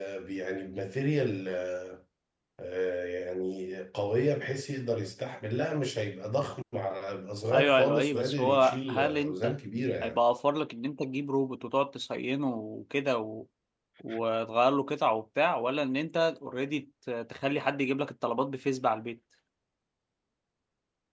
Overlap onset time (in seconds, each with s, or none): 7.5 s